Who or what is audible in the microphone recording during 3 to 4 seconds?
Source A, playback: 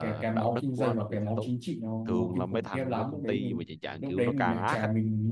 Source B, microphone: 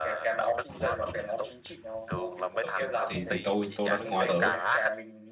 both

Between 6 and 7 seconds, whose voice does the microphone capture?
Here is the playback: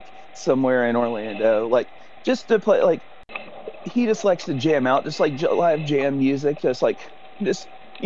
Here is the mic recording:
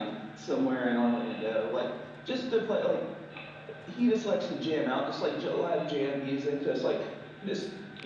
echo only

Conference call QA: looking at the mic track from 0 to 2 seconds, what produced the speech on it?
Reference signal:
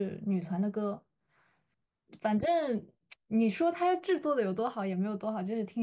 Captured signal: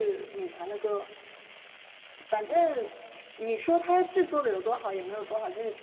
echo only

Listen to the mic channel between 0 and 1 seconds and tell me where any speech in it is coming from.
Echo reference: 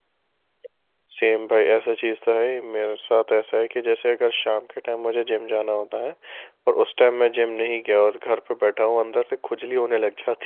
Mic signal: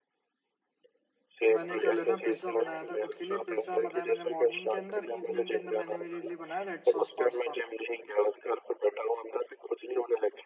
neither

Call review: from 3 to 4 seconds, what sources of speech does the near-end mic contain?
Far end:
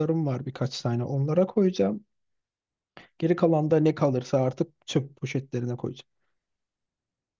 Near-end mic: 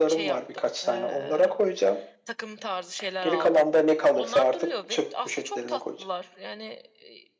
both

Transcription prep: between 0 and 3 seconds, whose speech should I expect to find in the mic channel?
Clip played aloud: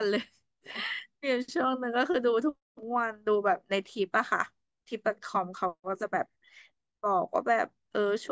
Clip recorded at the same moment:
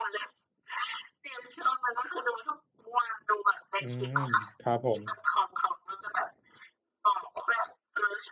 echo only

